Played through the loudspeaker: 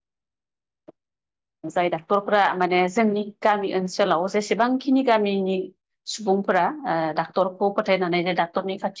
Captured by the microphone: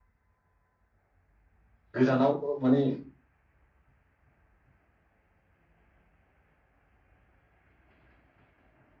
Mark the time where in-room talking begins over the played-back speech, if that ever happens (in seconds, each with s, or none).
2.0 s